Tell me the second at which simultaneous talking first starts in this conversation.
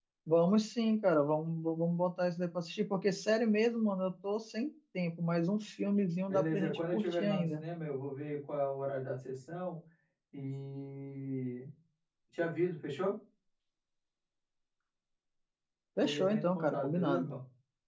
6.3 s

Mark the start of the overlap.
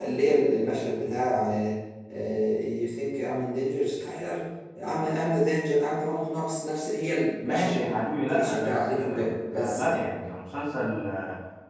7.4 s

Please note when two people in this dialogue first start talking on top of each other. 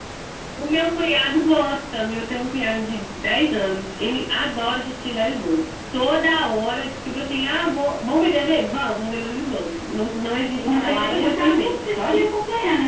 10.6 s

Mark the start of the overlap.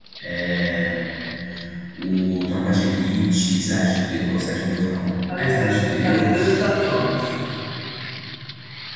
5.3 s

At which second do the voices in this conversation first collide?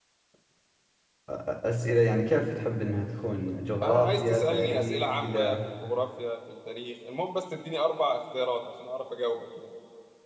3.8 s

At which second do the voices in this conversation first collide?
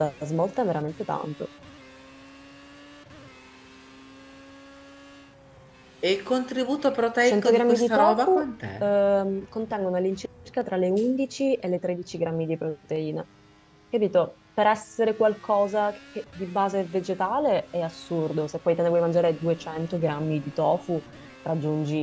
7.2 s

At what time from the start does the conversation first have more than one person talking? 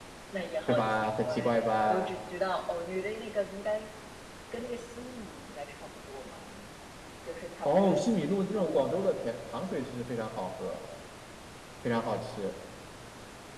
0.7 s

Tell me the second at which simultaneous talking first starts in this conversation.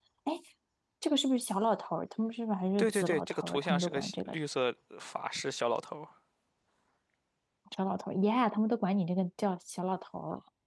2.8 s

